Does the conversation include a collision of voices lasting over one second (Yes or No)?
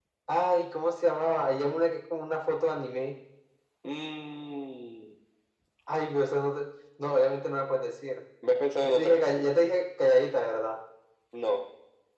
No